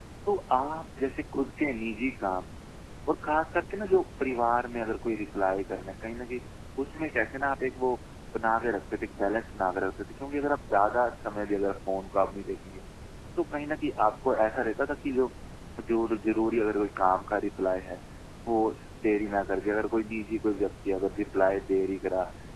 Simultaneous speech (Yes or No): No